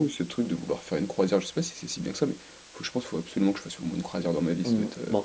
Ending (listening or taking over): taking over